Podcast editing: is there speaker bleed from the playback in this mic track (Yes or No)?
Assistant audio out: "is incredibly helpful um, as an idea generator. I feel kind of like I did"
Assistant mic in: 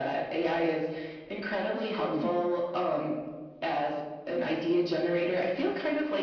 Yes